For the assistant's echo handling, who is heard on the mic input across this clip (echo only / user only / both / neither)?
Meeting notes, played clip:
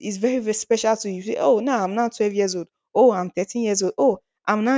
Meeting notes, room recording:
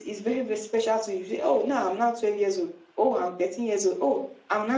echo only